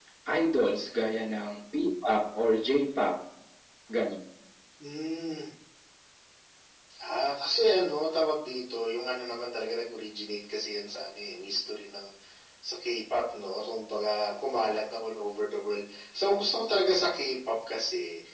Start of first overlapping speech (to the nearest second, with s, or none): none